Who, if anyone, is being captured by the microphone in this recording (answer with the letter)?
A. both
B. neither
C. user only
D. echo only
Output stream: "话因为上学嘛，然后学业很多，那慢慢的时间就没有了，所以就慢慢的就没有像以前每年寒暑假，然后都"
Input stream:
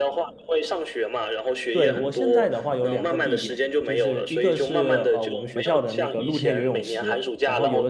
A